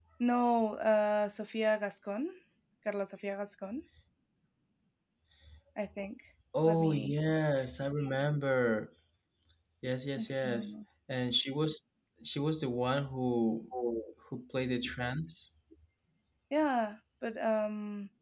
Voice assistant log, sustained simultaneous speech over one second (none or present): none